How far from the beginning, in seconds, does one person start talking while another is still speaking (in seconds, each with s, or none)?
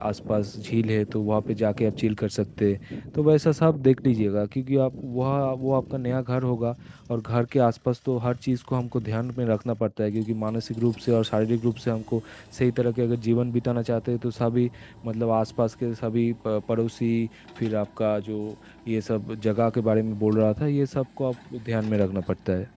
none